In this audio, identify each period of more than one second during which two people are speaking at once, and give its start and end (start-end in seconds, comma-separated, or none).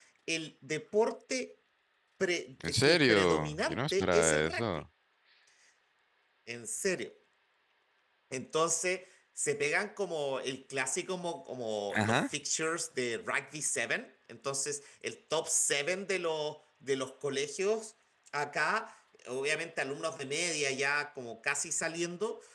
2.7-4.7